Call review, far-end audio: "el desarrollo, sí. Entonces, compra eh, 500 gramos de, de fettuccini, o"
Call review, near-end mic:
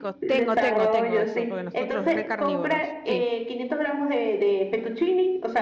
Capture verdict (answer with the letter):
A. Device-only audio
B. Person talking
B